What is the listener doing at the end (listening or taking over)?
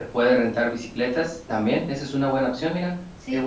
taking over